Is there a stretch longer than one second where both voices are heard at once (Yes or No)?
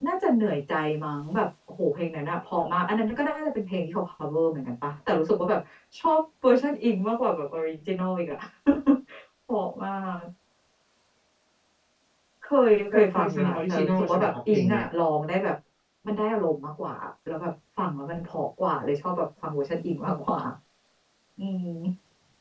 Yes